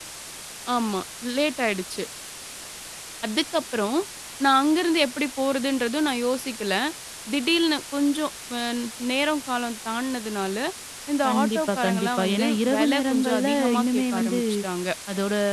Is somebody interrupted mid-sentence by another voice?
Yes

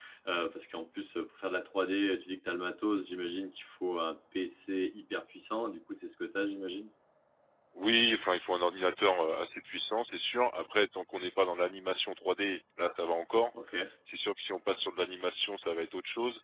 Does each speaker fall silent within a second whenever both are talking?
Yes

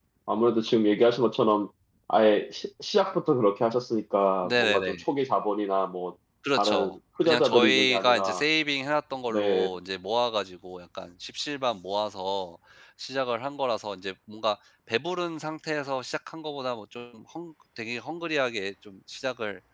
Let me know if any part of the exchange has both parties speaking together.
Yes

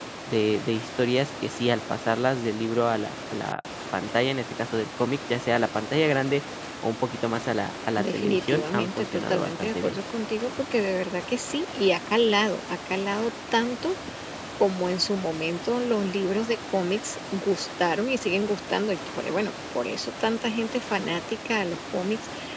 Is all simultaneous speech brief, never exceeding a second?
No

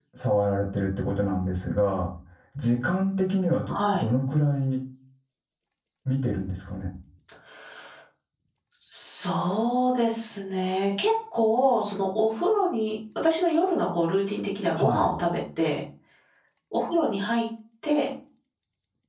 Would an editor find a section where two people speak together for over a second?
No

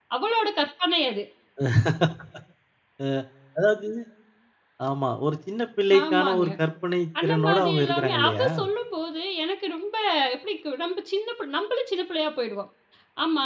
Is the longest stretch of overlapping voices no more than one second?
No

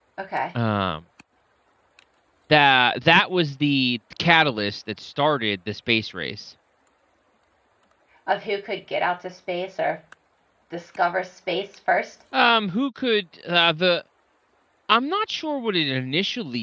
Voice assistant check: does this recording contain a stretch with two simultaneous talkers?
No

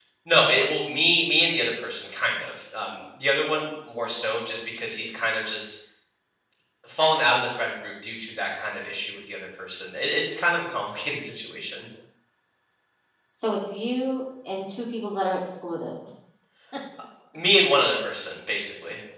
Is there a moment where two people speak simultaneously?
No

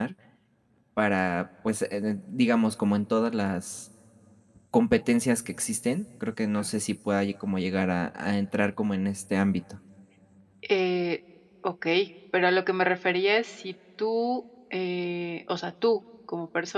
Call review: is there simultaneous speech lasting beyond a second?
No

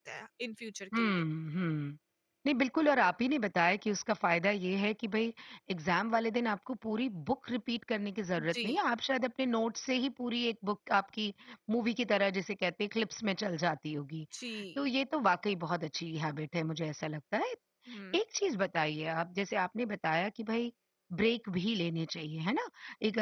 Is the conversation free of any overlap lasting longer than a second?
Yes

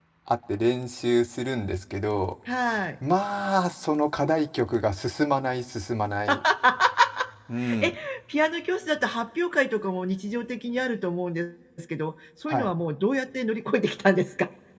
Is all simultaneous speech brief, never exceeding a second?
Yes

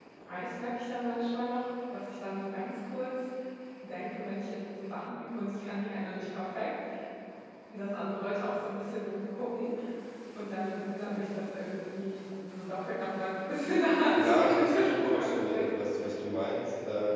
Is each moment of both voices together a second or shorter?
No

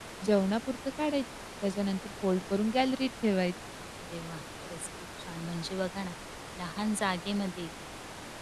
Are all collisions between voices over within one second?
Yes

